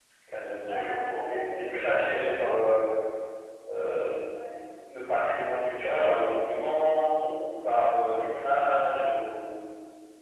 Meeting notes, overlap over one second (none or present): present